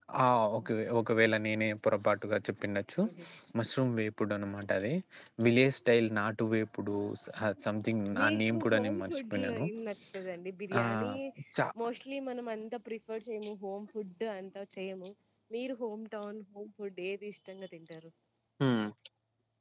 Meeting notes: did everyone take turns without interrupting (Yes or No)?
No